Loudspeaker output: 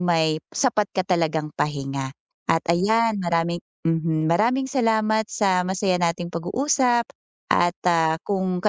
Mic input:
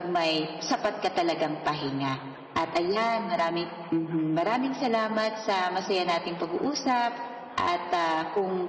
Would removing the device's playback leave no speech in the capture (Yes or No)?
Yes